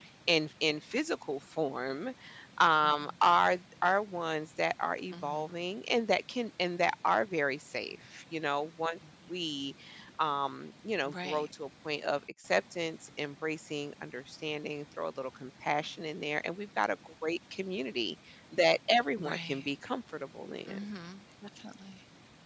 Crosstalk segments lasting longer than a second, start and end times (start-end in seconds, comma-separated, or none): none